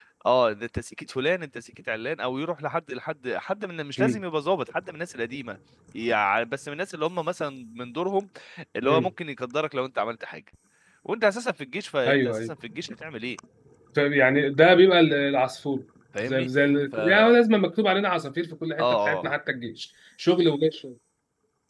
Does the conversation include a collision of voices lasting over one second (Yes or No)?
No